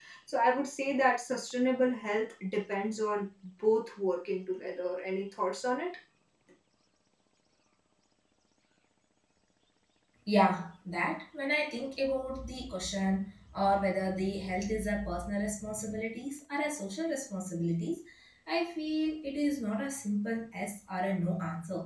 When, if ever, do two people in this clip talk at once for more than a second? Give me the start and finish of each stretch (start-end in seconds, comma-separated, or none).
none